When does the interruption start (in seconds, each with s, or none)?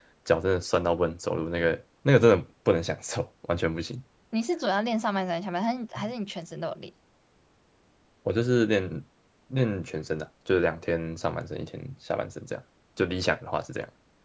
none